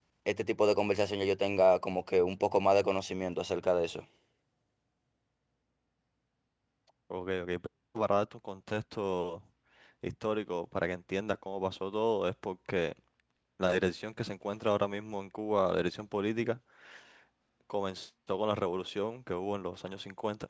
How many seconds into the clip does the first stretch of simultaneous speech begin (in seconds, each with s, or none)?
none